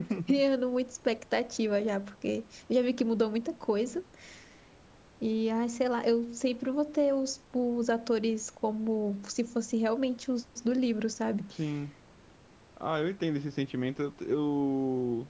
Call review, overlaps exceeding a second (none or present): none